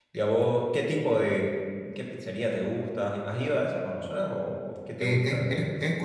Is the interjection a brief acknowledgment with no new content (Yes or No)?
No